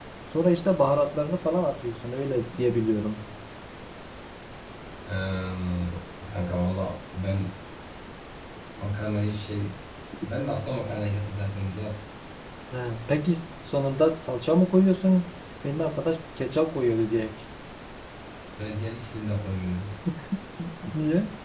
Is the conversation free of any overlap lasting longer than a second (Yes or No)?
Yes